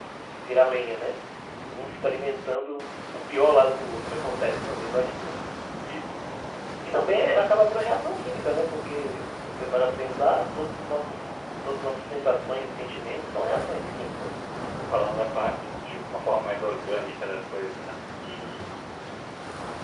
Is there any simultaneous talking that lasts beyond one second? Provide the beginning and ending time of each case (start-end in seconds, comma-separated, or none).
none